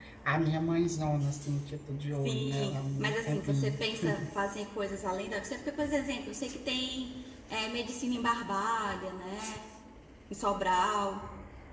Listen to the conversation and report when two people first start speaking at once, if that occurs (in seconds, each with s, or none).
2.1 s